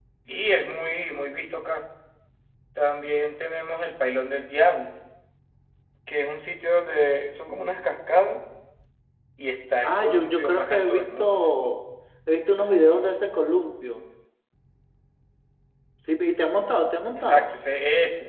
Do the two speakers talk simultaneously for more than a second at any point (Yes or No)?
Yes